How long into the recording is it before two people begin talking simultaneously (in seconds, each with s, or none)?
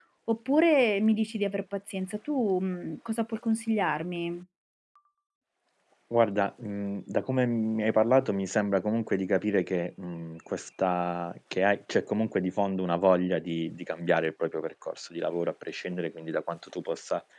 none